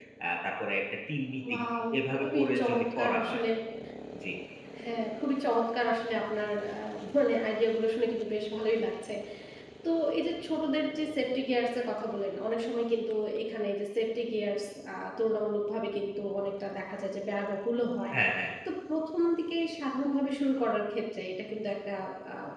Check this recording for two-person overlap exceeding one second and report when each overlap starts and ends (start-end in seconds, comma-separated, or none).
2.1-3.4